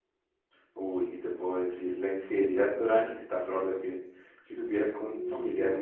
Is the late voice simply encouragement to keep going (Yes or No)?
Yes